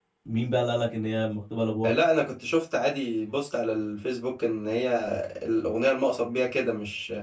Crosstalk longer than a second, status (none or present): none